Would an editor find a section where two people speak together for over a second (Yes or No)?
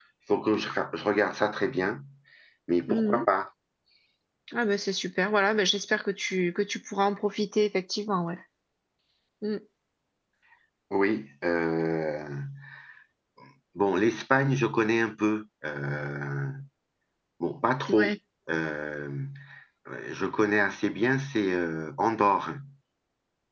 No